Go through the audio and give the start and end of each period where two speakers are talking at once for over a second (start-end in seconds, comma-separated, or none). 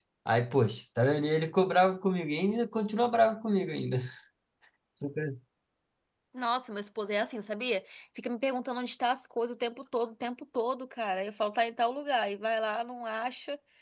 none